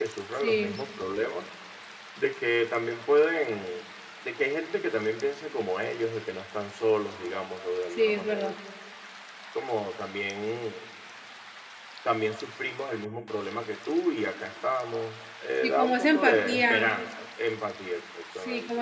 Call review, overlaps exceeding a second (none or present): present